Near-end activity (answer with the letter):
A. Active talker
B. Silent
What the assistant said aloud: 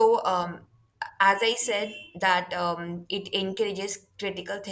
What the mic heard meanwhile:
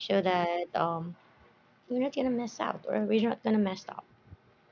A